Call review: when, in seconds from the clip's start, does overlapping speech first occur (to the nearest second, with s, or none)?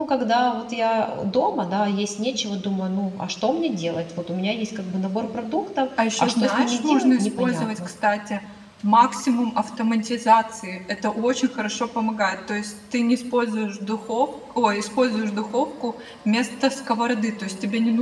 6 s